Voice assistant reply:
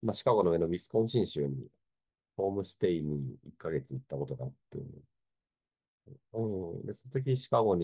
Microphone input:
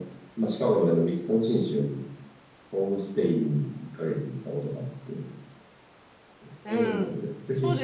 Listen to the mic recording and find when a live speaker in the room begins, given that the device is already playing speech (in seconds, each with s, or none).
6.6 s